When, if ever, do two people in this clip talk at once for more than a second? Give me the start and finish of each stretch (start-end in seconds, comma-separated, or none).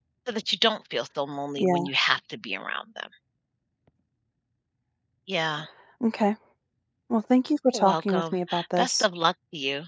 7.7-9.1